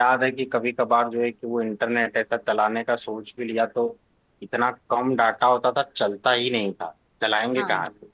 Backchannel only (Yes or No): Yes